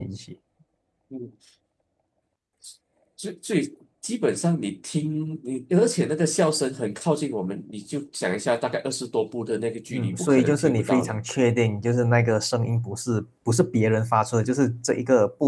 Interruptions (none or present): present